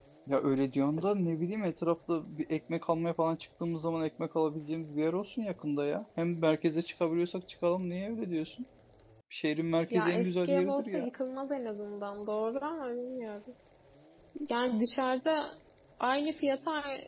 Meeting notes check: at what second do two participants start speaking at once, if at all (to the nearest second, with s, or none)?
10 s